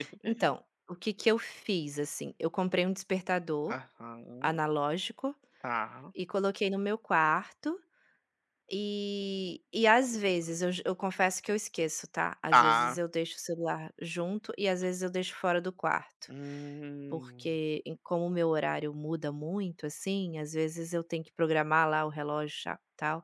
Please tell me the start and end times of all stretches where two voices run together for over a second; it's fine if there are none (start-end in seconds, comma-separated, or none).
none